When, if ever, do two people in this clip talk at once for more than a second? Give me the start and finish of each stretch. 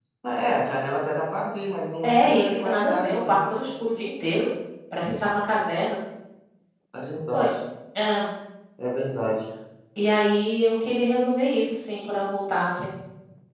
2.0-3.4

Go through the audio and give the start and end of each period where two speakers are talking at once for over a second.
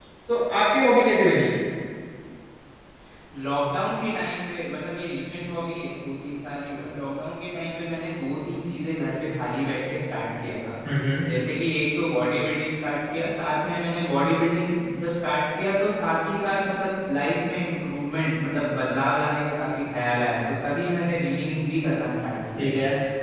none

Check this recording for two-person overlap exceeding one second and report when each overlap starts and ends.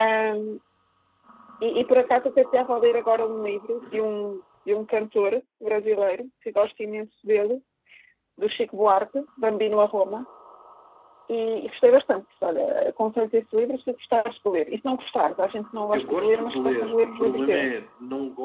15.9-17.7

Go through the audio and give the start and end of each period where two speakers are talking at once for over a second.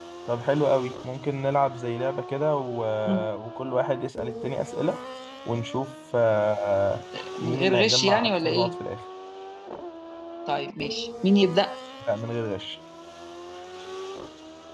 7.4-8.7

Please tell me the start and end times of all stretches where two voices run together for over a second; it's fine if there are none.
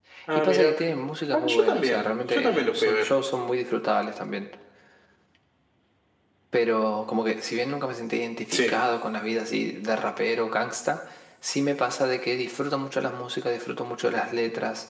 1.3-3.1

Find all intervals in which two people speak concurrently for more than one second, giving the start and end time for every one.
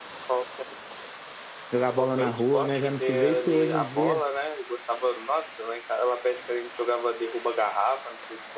2.0-4.2

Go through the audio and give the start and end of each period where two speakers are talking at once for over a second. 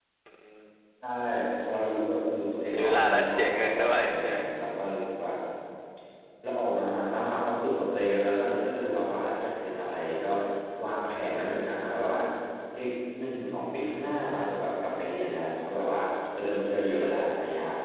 2.7-4.4

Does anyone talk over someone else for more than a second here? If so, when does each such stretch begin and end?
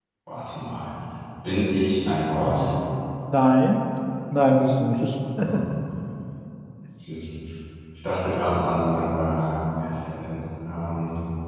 none

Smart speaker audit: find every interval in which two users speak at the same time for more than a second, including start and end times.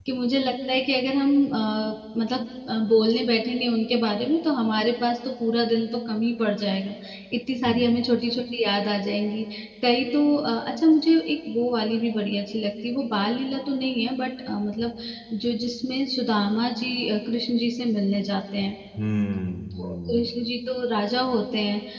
none

